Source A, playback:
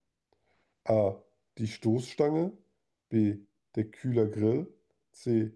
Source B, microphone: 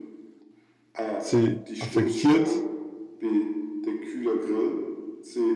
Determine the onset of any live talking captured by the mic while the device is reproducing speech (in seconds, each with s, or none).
1.2 s